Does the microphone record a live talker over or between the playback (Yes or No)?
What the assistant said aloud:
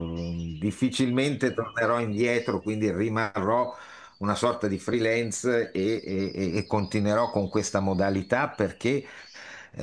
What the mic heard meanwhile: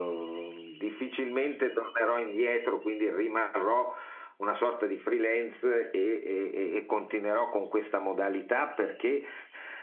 No